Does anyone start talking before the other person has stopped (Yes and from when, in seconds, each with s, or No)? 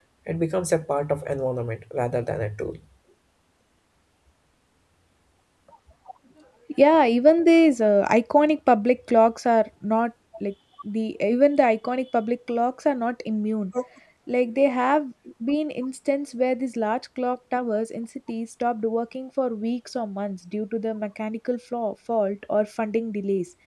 No